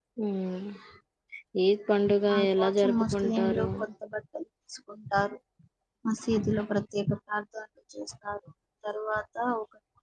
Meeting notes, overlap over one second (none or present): present